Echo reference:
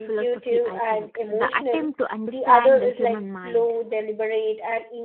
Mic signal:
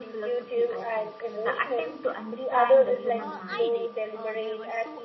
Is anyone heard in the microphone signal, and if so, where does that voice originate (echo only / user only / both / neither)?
both